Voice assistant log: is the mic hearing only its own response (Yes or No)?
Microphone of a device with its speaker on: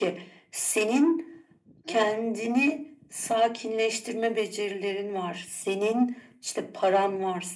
No